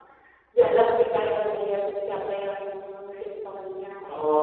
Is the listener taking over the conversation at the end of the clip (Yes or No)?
Yes